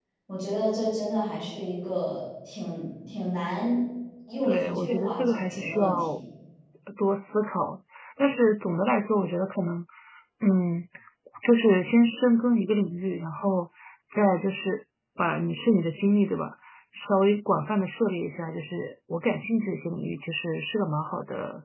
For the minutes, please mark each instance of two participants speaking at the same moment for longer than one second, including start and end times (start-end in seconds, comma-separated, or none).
4.4-6.2